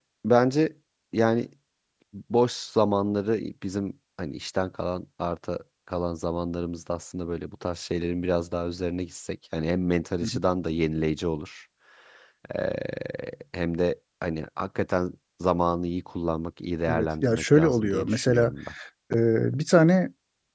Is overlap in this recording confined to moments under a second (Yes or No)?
No